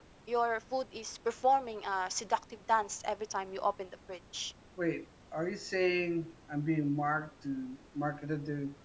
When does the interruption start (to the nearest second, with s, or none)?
none